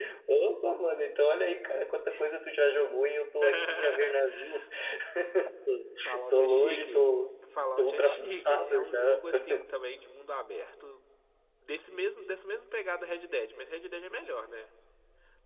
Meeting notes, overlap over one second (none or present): present